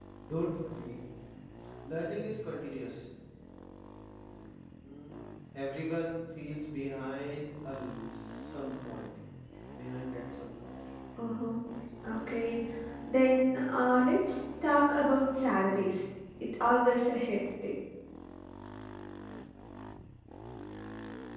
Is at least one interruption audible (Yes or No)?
No